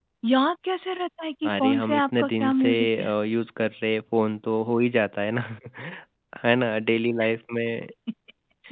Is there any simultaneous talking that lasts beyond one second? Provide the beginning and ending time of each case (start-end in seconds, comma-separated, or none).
1.5-3.1